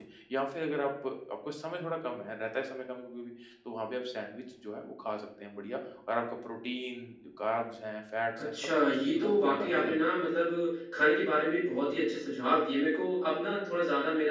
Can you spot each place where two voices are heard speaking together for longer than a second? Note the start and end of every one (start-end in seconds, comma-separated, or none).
8.4-10.1